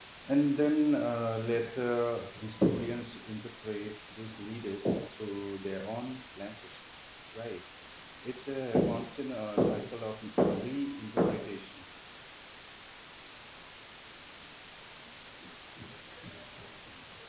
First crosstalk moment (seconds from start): none

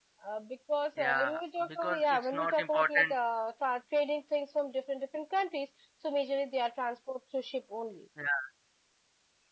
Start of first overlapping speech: 1 s

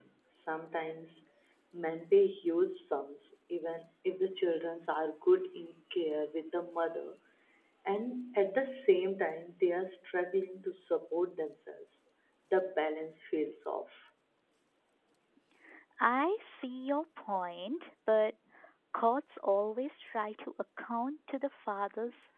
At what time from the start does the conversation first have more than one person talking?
none

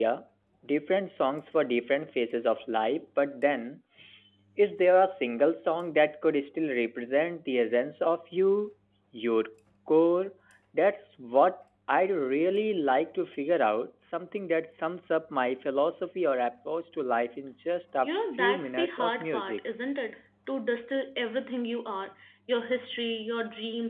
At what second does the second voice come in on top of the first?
18 s

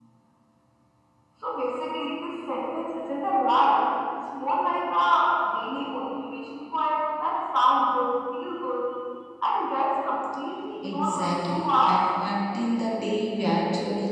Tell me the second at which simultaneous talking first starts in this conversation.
11 s

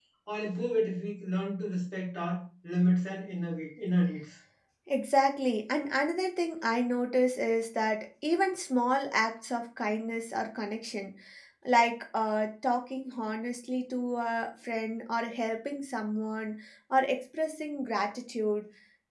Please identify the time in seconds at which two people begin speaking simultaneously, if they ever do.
none

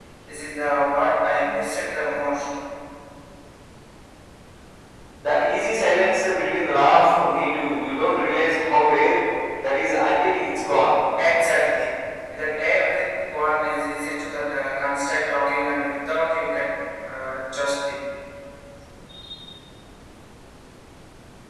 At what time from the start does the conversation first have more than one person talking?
none

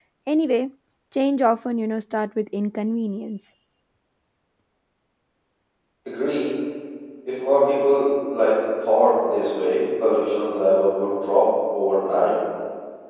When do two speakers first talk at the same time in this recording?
none

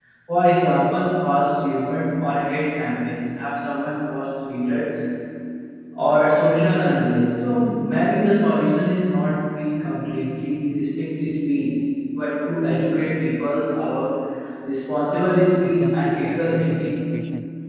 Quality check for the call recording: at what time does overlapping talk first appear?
16 s

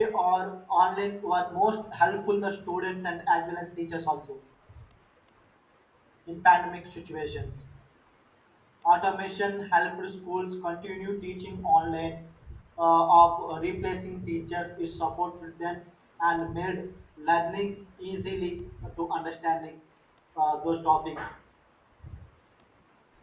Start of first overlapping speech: none

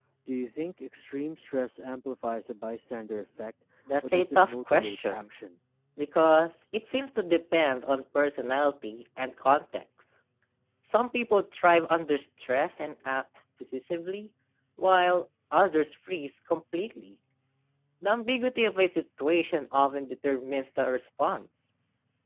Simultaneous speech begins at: 4 s

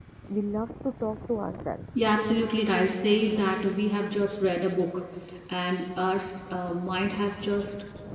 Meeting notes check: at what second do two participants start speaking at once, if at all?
none

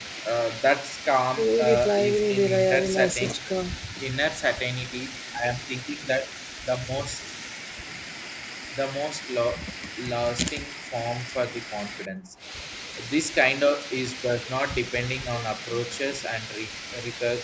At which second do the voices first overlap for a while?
1 s

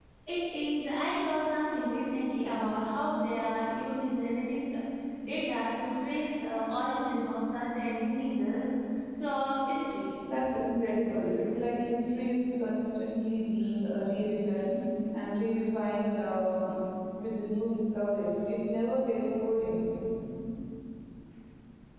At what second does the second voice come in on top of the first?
none

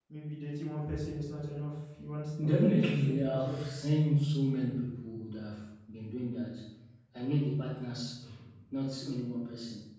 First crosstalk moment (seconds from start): 2 s

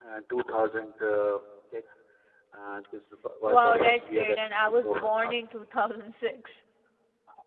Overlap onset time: 3 s

